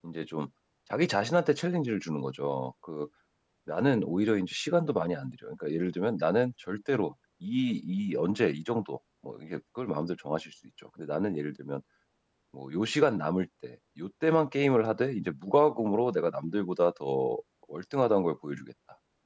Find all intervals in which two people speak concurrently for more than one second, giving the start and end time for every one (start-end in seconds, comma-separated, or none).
none